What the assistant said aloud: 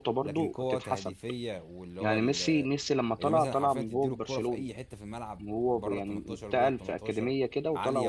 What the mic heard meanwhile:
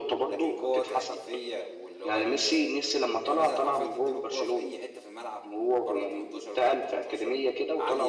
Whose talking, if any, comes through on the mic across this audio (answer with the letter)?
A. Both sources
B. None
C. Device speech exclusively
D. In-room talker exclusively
C